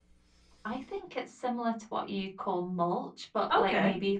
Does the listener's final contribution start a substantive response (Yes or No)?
No